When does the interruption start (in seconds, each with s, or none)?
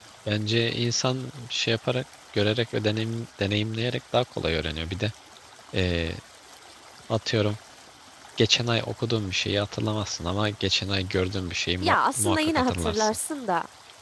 11.8 s